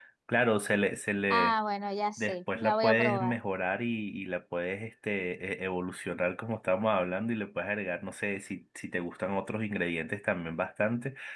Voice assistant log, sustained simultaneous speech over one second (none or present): present